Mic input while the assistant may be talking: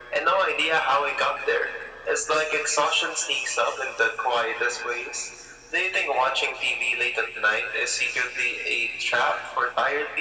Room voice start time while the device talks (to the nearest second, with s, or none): none